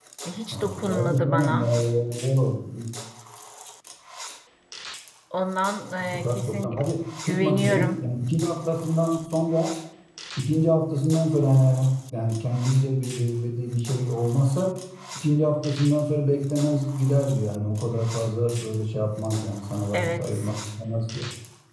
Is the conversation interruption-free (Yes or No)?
No